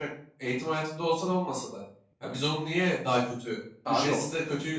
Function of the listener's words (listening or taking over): listening